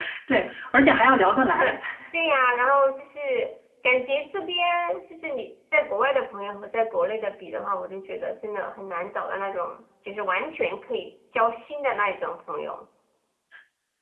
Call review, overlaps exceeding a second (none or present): none